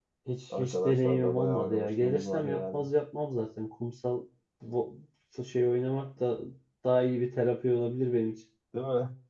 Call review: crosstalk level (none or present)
present